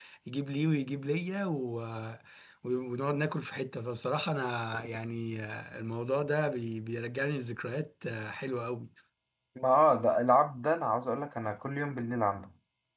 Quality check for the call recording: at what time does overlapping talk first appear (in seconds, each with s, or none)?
none